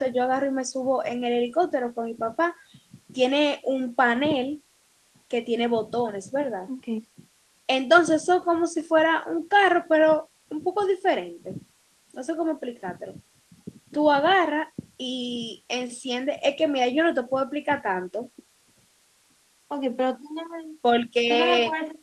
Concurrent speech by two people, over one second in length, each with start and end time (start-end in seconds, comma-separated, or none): none